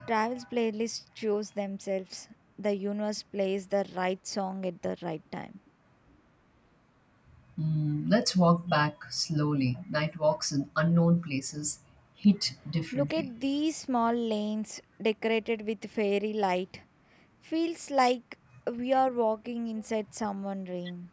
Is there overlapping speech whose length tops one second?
No

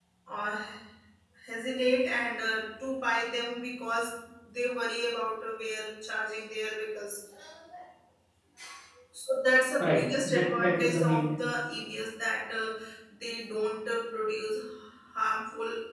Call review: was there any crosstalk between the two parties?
Yes, from 9.8 s

